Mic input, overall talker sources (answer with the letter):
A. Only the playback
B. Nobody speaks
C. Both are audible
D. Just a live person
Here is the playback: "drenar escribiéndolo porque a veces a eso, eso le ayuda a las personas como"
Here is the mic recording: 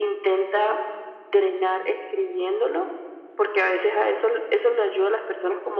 A